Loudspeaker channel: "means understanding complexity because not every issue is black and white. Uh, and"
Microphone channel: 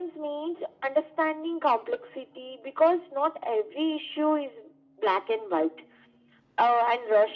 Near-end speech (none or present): none